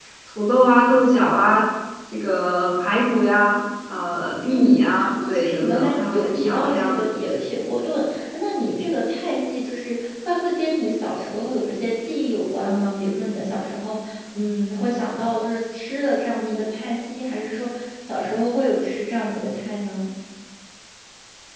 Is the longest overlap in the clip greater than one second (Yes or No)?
Yes